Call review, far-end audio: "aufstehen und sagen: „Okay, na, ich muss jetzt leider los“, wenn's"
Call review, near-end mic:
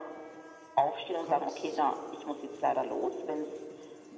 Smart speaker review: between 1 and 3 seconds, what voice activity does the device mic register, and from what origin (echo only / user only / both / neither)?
both